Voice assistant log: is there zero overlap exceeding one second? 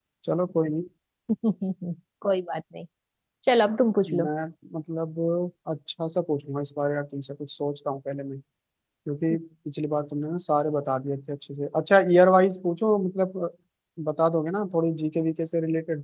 Yes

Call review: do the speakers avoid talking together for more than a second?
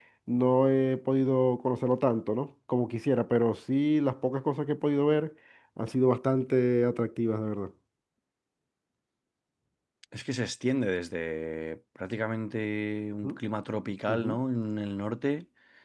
Yes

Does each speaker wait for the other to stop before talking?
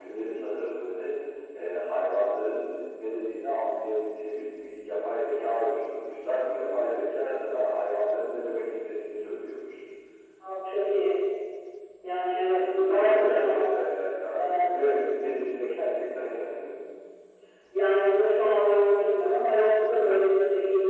No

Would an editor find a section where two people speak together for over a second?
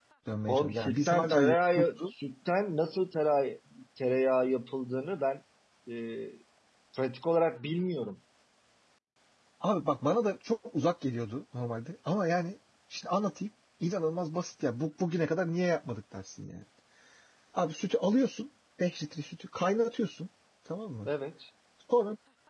Yes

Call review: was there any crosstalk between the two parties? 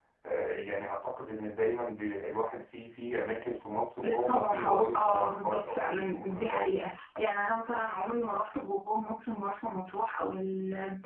Yes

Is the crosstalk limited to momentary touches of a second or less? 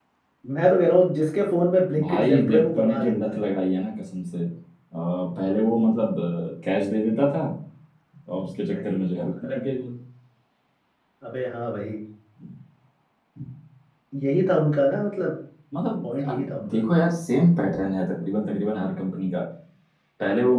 No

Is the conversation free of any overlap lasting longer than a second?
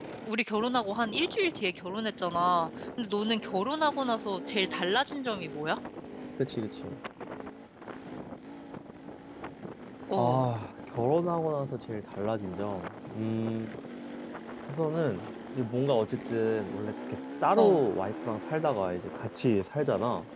Yes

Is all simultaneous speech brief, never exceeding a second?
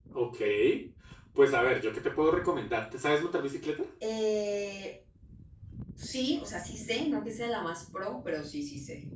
Yes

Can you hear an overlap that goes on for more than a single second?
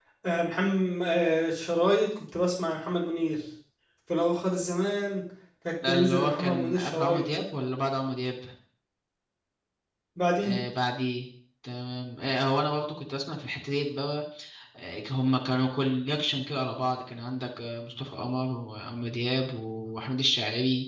Yes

